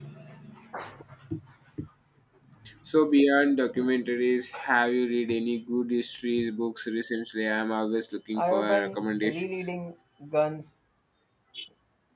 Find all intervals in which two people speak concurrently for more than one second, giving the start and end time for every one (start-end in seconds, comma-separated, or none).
8.3-9.7